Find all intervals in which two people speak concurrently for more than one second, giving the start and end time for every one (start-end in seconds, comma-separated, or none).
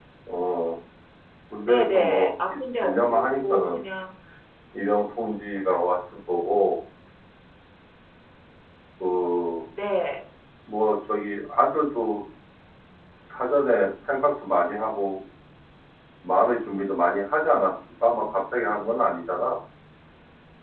1.7-3.8